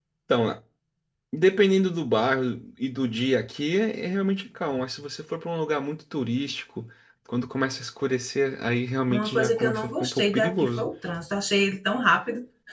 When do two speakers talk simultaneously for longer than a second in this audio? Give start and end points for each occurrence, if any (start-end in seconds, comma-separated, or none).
9.1-10.8